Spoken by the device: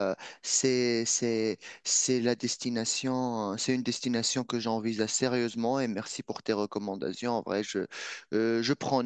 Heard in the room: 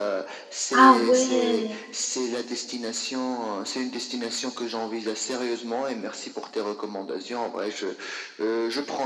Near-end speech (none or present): present